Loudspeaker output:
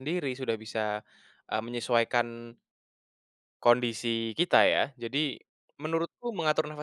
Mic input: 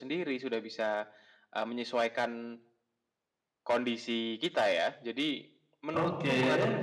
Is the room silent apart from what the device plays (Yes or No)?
No